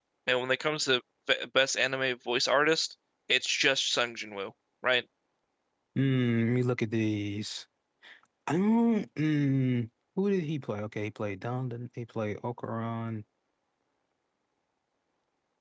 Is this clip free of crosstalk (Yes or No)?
Yes